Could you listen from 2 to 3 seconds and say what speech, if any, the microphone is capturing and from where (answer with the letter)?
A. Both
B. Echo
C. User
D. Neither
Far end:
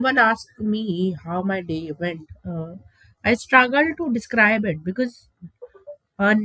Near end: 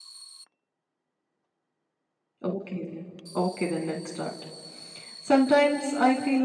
C